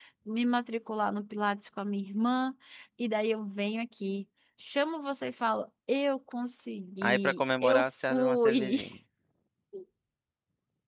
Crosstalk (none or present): present